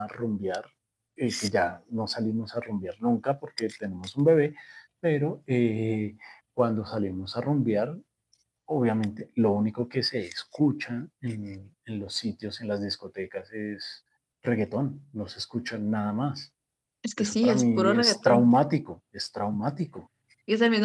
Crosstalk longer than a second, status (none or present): present